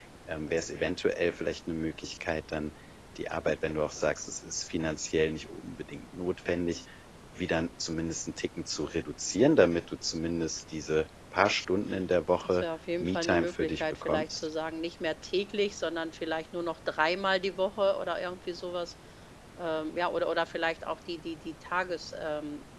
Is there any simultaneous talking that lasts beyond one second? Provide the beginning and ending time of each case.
13.0-14.4

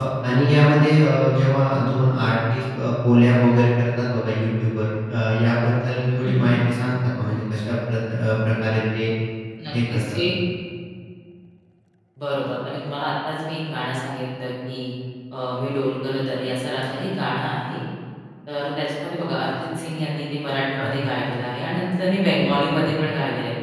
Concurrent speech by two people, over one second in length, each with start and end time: none

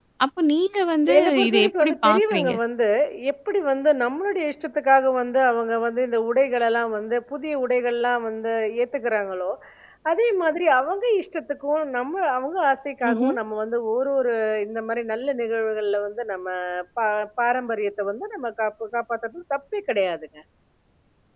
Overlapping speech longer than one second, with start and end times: 1.2-2.5

